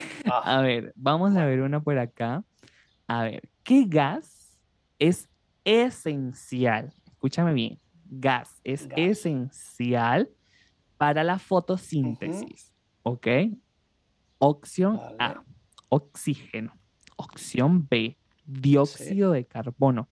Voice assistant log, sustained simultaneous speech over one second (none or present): none